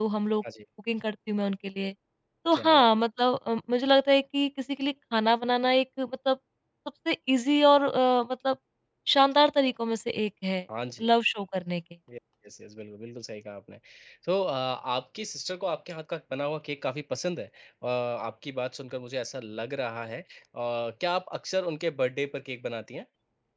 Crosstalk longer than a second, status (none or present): none